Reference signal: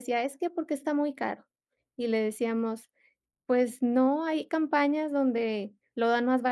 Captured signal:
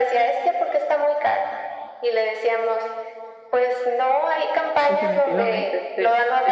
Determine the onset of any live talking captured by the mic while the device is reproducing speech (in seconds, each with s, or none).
4.9 s